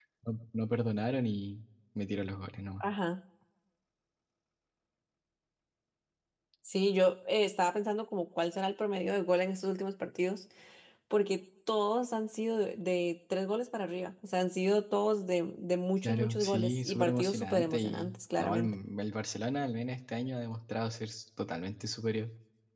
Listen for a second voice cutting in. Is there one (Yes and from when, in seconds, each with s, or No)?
Yes, from 16.0 s